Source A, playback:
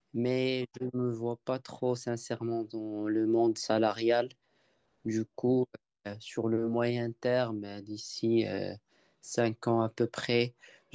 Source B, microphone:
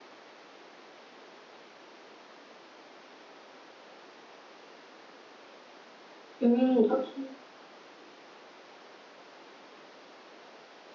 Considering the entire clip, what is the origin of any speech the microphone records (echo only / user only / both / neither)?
user only